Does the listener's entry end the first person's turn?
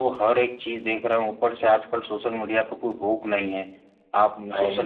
No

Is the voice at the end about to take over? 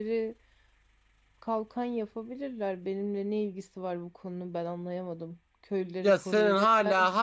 Yes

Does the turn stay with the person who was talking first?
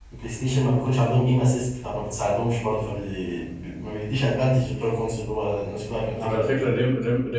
No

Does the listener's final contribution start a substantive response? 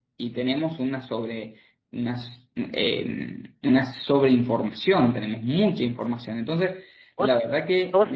No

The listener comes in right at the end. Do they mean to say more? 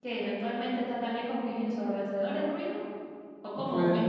No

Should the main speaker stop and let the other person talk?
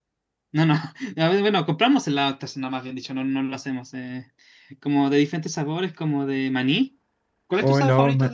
Yes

